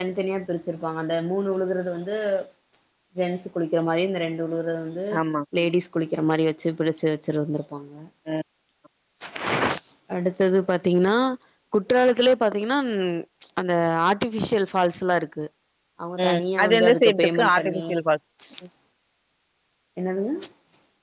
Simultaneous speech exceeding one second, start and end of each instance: 16.2-17.8

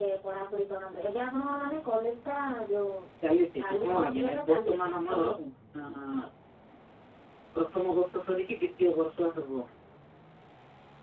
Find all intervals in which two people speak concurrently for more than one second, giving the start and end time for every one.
3.6-5.2

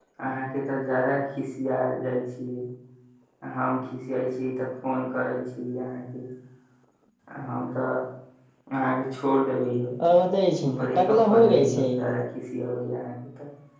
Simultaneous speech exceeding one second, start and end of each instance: 10.6-11.9

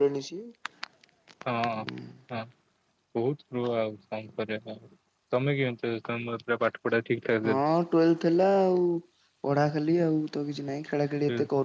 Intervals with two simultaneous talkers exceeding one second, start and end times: none

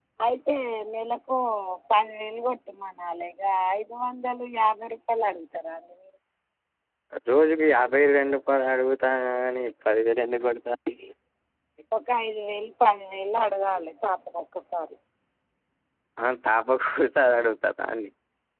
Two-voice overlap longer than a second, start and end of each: none

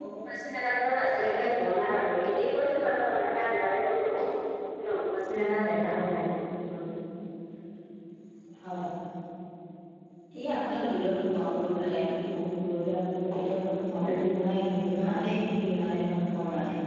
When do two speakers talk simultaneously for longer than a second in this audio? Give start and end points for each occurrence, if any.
none

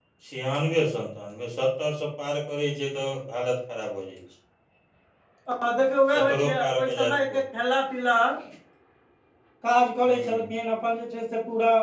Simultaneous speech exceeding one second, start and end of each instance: 6.1-7.4

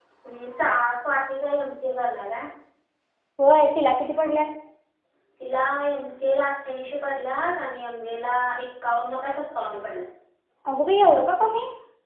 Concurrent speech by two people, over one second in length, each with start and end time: none

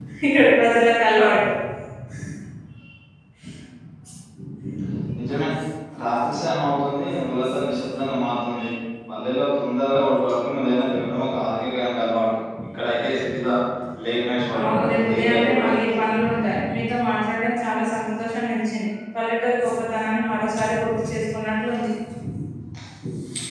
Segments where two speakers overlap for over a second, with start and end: 14.6-16.1

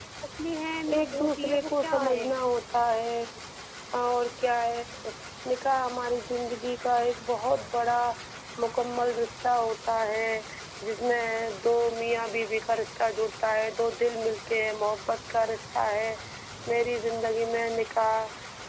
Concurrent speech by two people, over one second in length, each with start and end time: 0.9-2.2

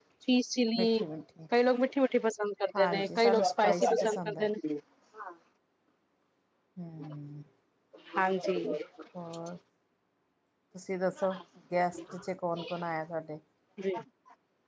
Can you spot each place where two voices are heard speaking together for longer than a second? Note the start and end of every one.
2.8-4.5

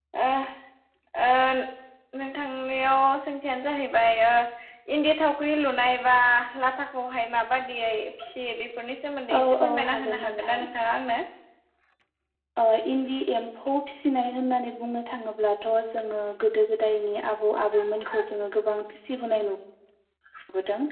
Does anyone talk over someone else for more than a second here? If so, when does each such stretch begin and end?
9.4-10.7

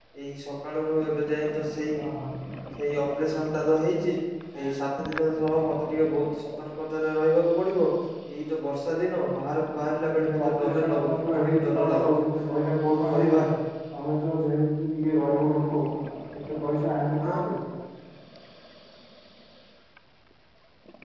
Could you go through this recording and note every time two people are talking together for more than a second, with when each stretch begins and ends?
10.4-12.1

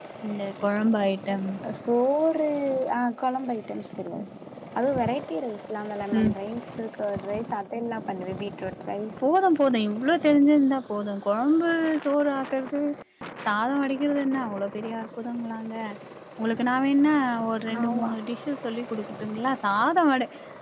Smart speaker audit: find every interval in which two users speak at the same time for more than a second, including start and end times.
none

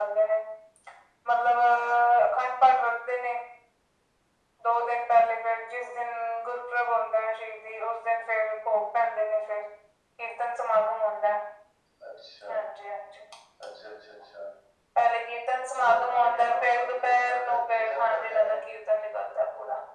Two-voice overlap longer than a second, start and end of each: 15.7-18.5

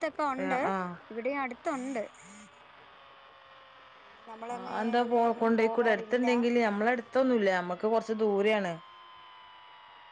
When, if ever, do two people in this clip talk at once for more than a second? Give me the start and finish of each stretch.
4.6-6.3

